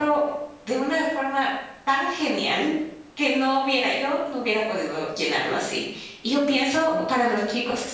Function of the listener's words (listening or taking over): listening